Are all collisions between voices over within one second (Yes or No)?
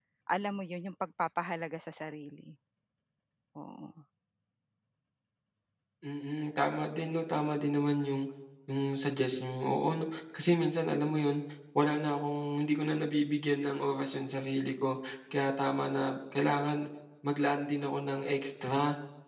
Yes